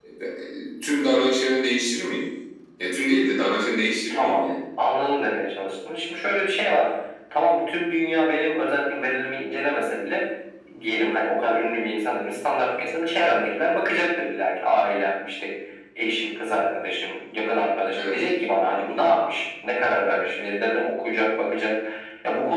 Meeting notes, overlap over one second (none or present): none